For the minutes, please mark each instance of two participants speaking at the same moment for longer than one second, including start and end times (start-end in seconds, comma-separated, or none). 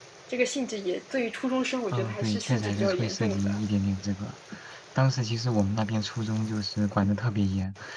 1.9-3.6